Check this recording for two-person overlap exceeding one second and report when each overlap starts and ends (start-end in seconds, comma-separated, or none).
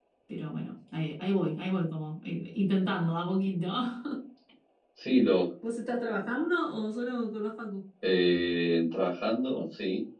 none